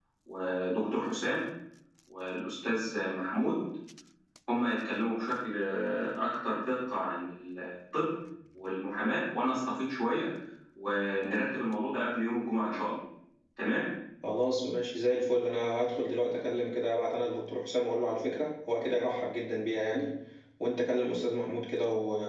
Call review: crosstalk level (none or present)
none